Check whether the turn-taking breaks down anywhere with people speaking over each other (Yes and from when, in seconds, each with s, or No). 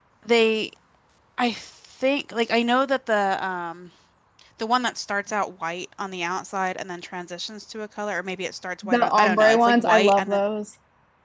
Yes, from 8.8 s